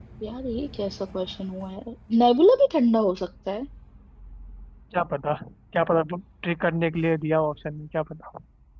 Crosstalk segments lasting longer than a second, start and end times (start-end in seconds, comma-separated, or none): none